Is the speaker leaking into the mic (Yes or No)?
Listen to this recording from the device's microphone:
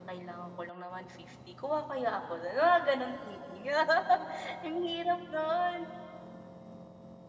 Yes